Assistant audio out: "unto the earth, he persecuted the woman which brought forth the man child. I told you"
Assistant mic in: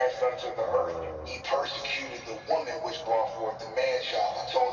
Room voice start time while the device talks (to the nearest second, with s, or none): 1 s